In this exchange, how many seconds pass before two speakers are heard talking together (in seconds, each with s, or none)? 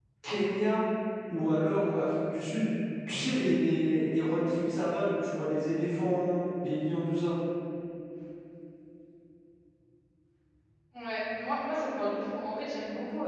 none